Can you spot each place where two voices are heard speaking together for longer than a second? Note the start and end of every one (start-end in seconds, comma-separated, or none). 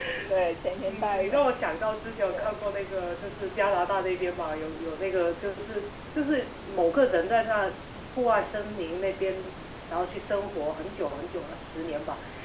none